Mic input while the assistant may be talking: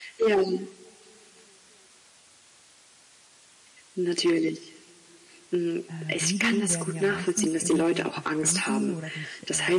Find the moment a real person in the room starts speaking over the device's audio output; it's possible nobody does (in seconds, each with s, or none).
5.9 s